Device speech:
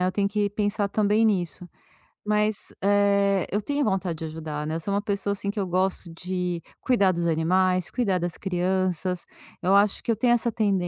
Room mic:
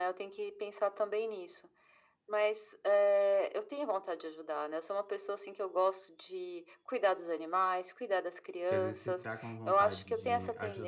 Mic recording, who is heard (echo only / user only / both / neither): both